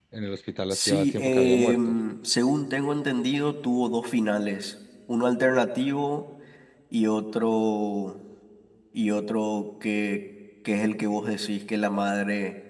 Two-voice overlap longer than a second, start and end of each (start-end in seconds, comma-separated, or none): 0.7-1.9